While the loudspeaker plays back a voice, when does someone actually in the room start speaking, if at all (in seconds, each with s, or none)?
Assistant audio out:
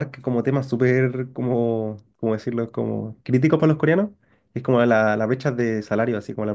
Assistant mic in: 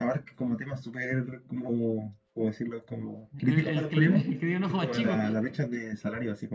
3.3 s